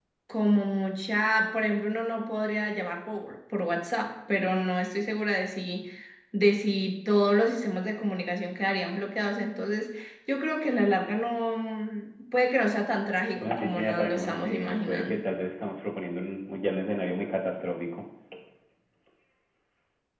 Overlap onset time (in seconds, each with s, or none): 13.4 s